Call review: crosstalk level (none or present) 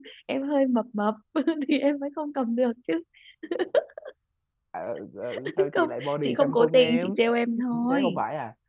present